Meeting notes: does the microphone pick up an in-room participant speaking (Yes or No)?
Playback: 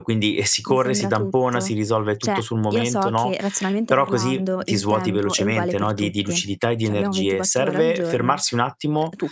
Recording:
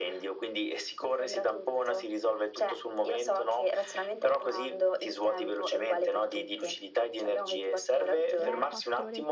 Yes